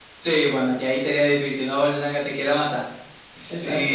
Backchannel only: No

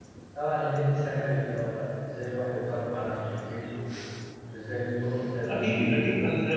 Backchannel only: No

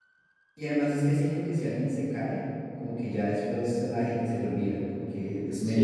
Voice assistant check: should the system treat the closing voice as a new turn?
Yes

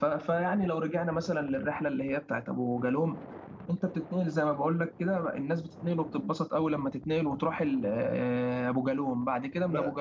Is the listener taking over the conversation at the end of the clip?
No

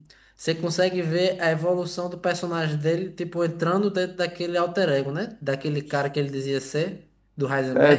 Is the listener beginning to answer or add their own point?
Yes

